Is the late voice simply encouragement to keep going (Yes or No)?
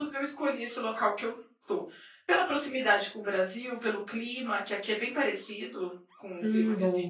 Yes